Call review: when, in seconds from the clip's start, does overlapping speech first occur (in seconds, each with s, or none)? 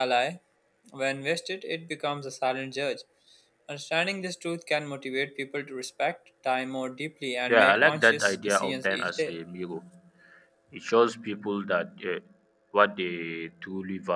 7.5 s